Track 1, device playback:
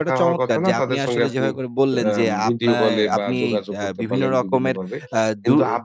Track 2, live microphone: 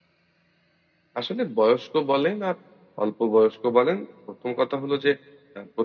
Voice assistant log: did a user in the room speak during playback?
Yes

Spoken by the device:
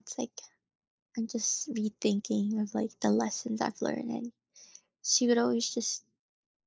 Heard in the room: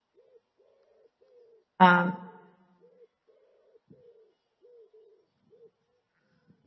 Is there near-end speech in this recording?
Yes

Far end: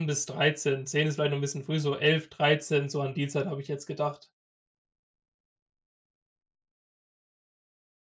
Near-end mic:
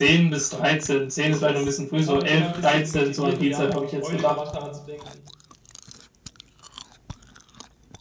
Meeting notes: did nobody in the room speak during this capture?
No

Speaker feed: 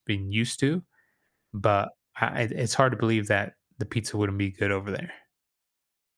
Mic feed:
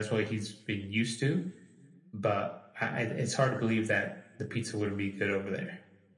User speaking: No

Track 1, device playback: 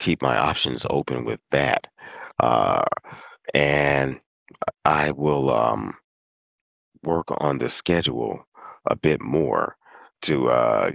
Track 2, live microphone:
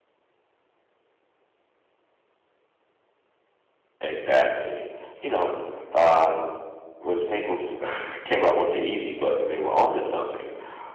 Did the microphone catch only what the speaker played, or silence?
No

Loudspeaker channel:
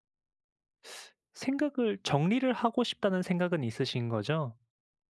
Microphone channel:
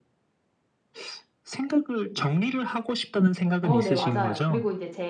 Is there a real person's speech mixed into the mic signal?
Yes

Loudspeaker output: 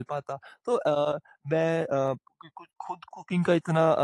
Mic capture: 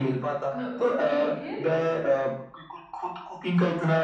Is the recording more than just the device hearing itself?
Yes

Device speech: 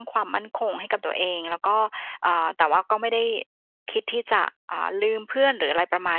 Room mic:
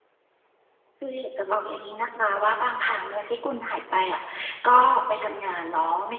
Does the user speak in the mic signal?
Yes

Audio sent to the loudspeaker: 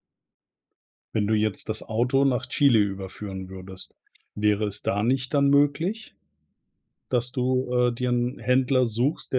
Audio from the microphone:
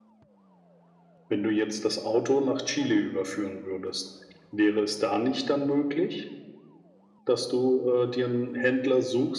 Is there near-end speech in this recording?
No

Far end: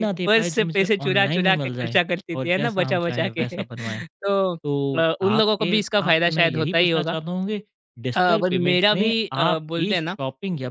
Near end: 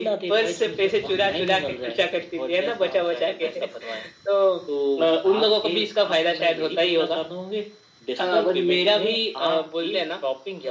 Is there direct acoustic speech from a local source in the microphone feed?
No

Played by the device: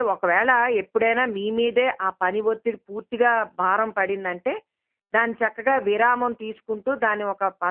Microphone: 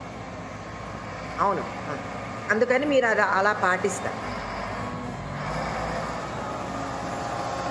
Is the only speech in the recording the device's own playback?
No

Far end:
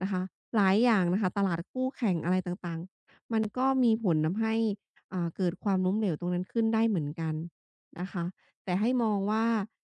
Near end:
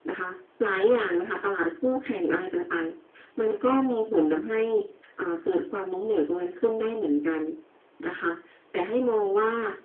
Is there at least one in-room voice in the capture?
No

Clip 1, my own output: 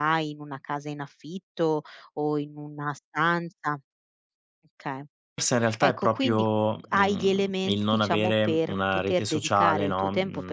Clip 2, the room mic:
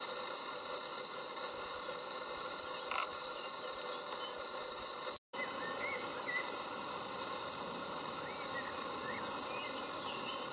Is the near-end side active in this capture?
No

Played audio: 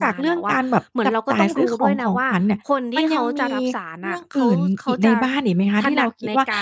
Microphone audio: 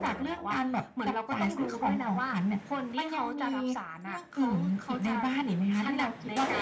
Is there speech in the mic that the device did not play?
No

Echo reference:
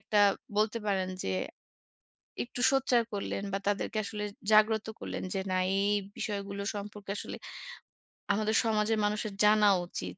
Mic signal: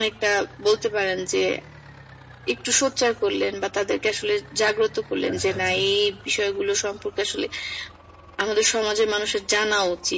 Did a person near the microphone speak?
Yes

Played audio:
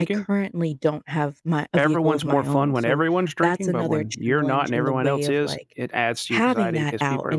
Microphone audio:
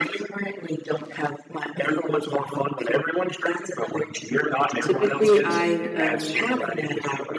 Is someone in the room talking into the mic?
Yes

